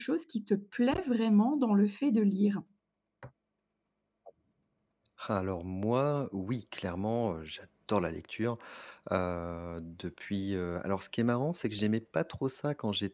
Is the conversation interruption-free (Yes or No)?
Yes